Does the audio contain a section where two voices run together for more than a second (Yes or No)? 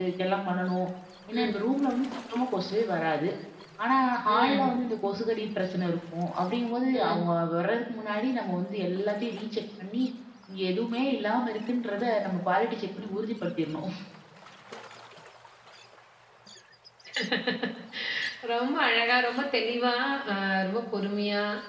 No